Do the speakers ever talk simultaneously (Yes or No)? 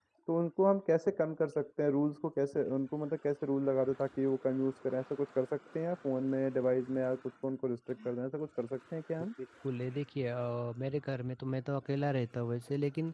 No